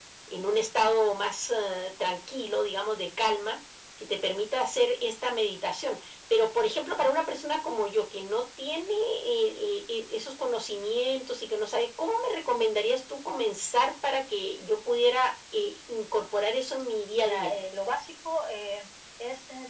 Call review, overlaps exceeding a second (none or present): none